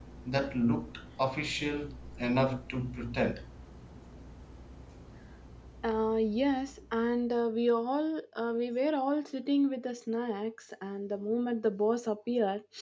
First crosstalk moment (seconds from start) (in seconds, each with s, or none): none